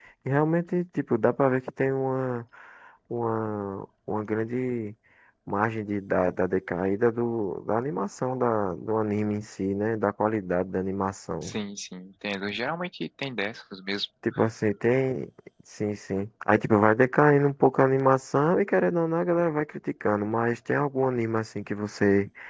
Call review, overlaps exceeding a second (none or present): none